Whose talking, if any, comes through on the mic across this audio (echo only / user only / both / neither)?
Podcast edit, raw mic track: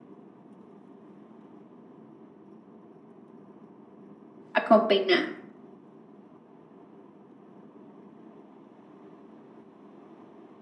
user only